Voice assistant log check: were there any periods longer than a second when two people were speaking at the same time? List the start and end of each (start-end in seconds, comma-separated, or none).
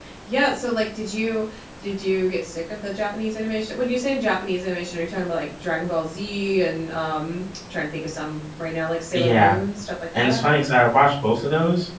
none